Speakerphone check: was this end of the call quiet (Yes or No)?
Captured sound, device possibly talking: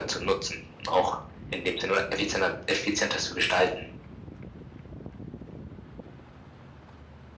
Yes